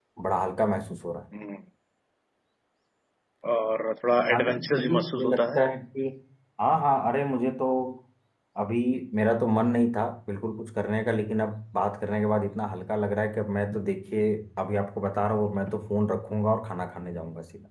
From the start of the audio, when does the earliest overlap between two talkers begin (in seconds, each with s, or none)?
4.3 s